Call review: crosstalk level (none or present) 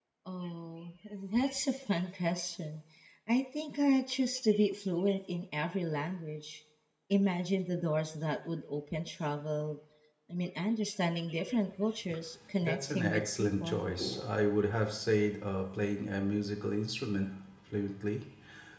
present